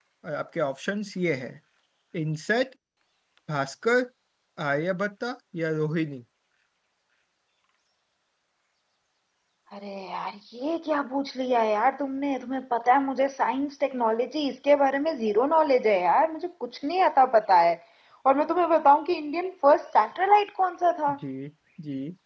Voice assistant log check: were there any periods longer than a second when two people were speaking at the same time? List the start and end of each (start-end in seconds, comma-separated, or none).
none